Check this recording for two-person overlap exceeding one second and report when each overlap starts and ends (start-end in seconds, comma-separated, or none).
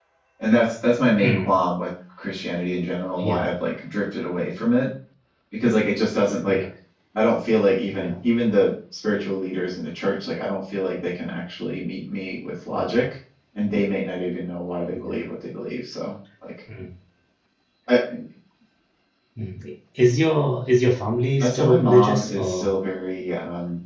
21.4-22.7